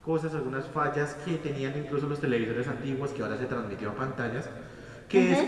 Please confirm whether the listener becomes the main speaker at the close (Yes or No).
No